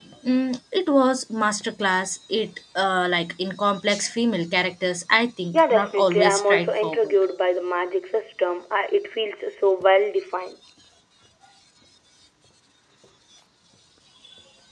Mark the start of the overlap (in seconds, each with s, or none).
5.5 s